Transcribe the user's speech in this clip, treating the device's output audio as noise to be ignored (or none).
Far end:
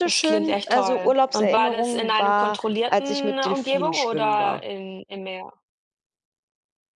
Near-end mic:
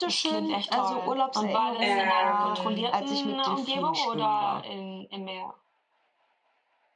ähm